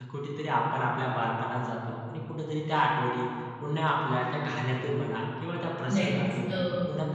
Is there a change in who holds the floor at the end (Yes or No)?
No